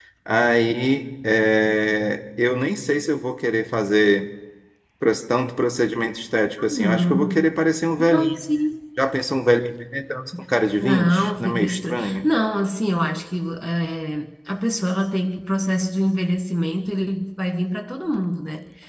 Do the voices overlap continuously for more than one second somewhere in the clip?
Yes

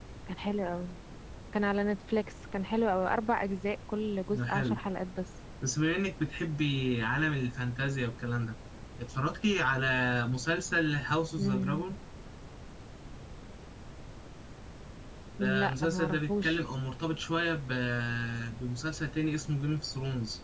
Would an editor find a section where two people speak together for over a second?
Yes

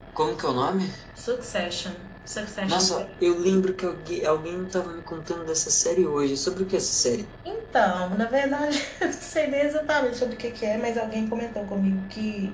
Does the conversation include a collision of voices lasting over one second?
No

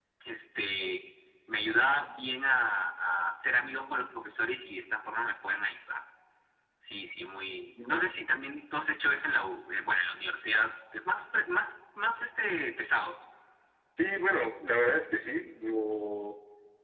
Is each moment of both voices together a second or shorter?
Yes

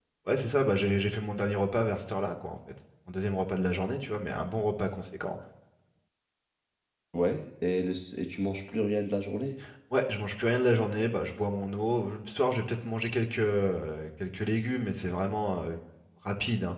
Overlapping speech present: No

